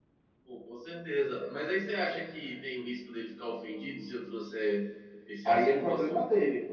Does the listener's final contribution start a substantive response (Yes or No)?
Yes